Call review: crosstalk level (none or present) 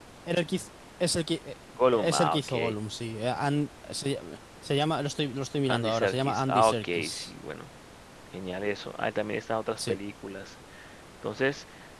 present